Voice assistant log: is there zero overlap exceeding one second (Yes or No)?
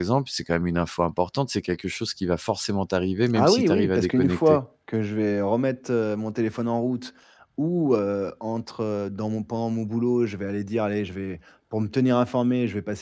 No